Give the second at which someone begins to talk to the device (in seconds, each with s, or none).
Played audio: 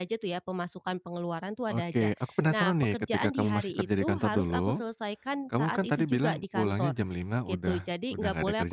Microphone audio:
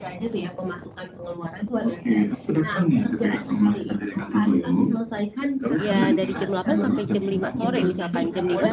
5.8 s